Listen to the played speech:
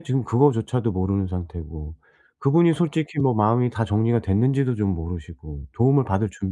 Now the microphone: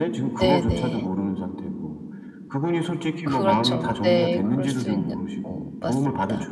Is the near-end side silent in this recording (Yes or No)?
No